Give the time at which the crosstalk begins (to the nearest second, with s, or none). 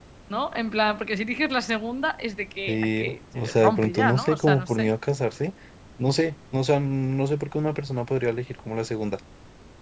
3 s